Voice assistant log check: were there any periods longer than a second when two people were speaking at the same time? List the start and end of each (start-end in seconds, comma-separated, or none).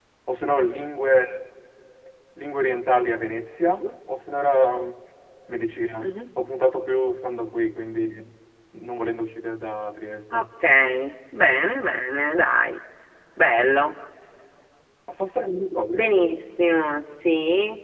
none